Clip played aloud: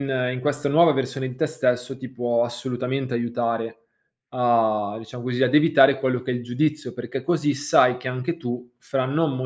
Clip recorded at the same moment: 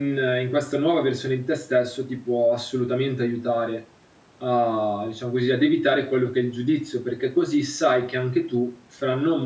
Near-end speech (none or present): none